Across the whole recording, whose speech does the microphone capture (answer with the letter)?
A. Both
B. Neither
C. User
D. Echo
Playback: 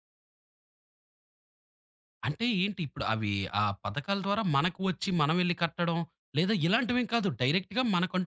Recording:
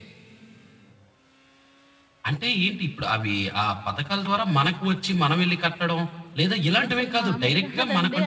A